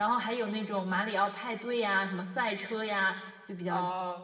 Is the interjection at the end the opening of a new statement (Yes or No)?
Yes